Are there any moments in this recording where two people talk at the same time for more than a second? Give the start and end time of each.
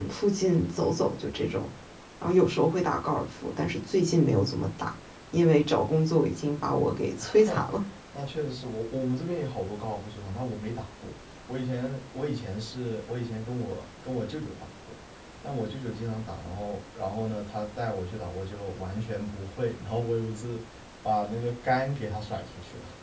none

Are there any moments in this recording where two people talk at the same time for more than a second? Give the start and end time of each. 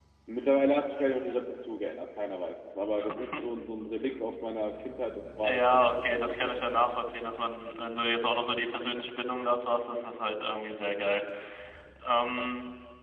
5.4-6.9

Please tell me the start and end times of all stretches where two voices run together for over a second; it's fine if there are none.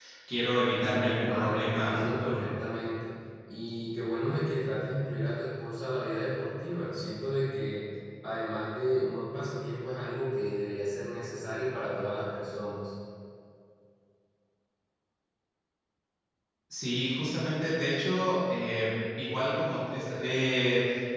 0.8-2.4

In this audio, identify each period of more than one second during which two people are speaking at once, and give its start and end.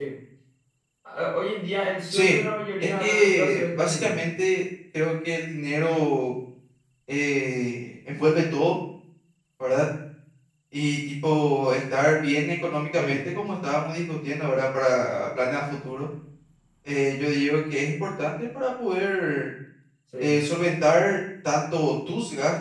2.8-4.2

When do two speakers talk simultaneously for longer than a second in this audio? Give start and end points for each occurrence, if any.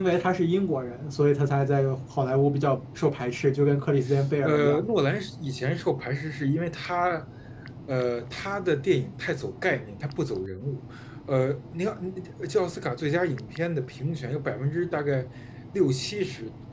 none

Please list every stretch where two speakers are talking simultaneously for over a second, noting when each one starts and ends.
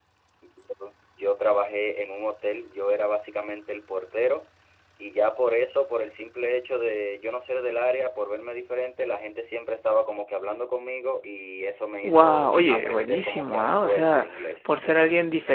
12.0-14.6

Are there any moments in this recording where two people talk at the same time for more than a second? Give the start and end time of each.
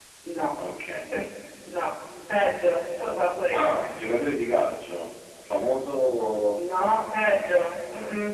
none

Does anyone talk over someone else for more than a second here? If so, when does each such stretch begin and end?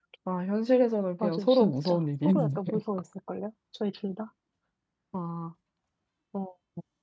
1.2-2.6

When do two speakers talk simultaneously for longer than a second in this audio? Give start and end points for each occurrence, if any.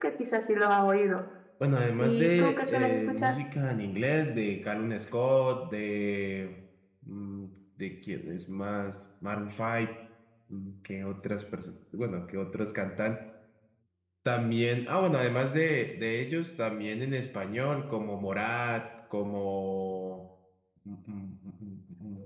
2.0-3.3

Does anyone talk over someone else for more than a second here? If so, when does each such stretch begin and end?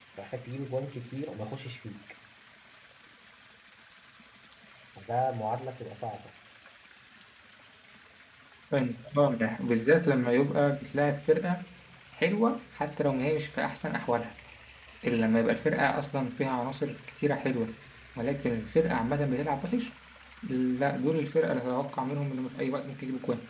none

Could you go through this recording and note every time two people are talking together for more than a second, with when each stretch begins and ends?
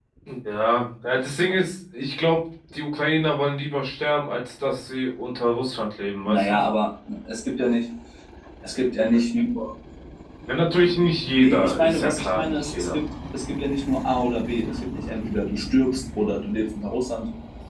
11.3-13.0

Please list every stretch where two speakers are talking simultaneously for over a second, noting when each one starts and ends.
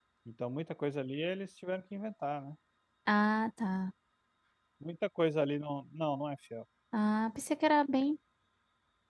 none

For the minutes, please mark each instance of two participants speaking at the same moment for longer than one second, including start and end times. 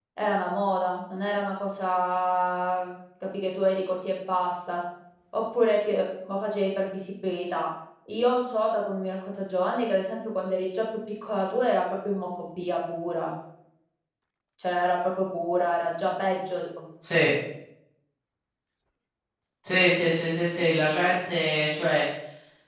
none

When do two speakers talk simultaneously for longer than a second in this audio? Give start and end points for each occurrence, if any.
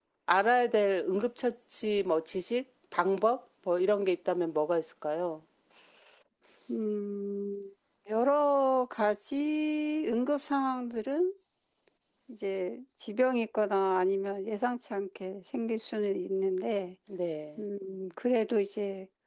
none

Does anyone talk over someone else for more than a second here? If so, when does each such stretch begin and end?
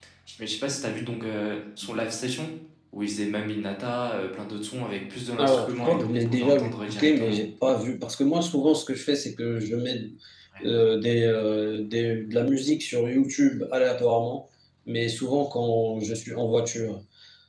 5.4-7.4

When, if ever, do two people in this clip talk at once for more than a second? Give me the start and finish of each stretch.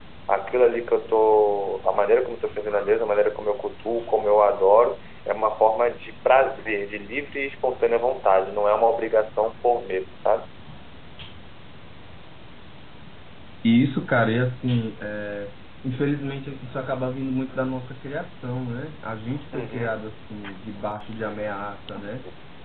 none

